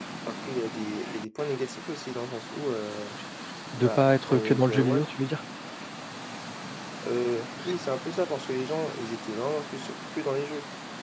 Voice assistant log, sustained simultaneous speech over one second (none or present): present